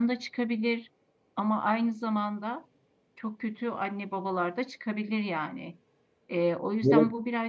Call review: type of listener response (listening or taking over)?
listening